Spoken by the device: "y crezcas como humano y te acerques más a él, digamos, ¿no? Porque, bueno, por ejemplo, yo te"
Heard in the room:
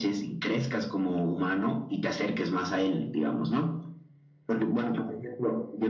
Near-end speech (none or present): none